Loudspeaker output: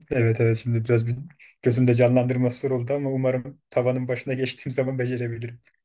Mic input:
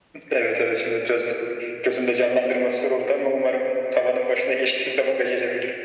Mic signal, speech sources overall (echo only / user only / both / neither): echo only